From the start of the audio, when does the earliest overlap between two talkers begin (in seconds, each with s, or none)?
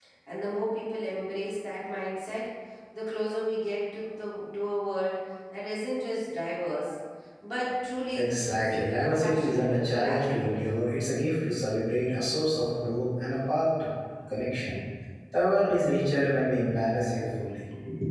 8.2 s